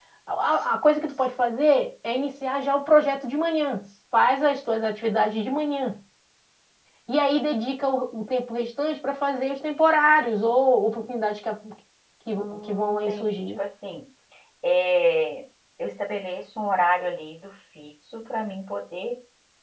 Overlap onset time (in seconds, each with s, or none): 12.3 s